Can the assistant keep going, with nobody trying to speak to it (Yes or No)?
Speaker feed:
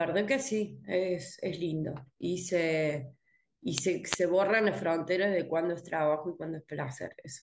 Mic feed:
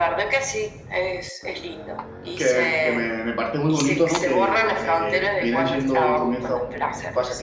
No